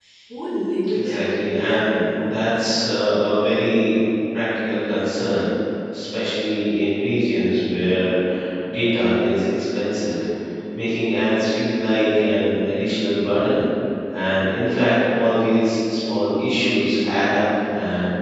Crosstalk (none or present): present